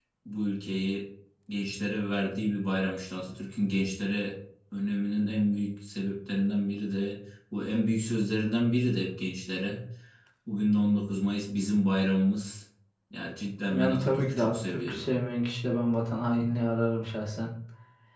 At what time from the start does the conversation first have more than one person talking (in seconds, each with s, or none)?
13.7 s